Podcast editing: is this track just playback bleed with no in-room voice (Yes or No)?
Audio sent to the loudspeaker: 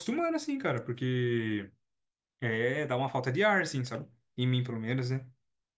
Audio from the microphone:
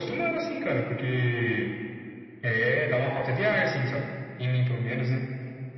Yes